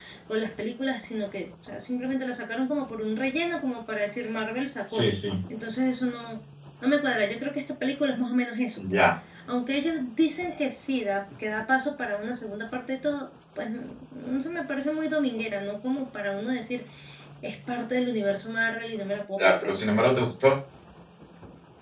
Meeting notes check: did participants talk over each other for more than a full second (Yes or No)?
No